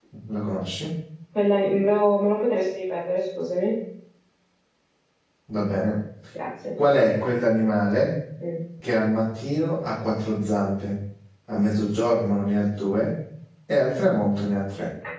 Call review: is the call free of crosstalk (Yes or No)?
Yes